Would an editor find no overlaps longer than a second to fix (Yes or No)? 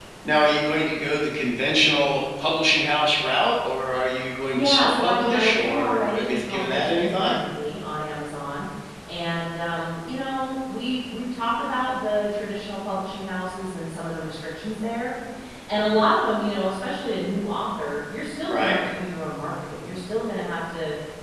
No